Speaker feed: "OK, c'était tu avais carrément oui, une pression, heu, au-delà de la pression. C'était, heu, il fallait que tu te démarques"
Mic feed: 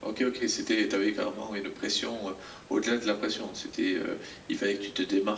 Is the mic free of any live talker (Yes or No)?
Yes